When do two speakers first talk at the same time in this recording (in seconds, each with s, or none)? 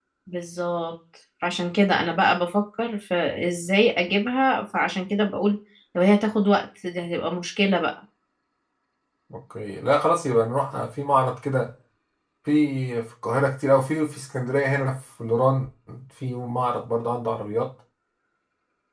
none